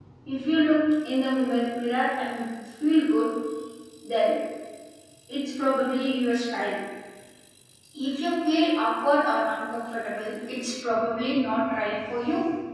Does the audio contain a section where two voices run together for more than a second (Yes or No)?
No